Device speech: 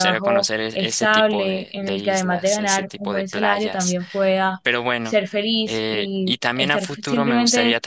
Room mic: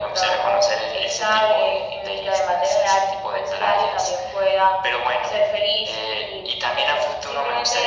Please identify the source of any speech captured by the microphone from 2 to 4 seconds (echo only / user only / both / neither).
echo only